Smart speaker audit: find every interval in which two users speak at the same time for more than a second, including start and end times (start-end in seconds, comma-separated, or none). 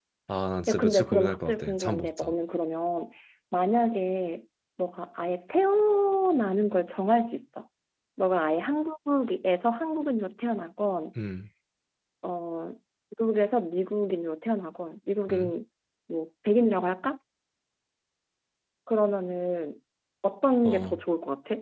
0.7-2.3